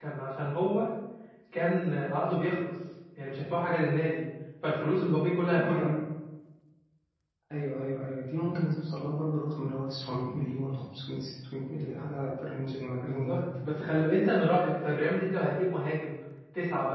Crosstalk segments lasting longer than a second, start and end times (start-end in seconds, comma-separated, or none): none